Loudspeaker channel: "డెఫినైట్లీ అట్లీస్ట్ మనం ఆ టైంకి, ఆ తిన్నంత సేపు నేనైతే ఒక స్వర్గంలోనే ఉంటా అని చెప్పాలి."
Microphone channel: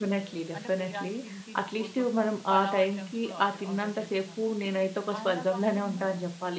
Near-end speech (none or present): present